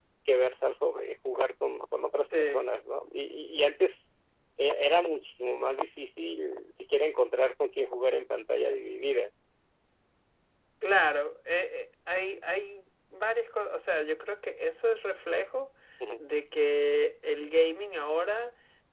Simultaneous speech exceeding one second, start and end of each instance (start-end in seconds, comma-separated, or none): none